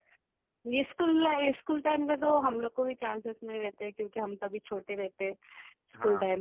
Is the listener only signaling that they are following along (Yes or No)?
Yes